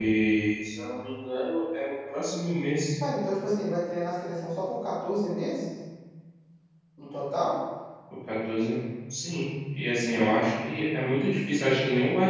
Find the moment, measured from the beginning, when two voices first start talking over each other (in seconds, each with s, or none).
none